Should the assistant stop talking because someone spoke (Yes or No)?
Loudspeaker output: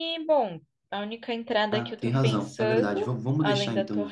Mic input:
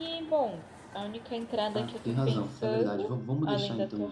No